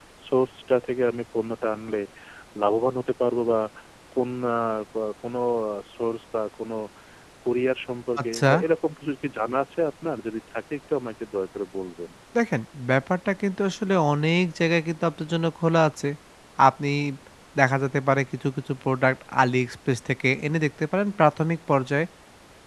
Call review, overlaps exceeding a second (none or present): none